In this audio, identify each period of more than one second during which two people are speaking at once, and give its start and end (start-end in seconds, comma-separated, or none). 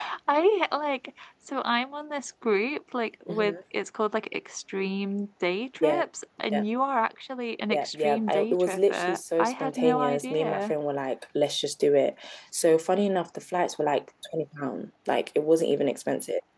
7.7-10.7